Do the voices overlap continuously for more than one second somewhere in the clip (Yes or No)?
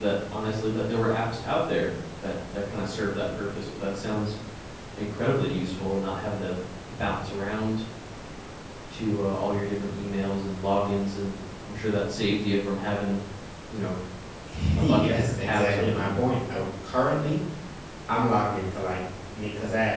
Yes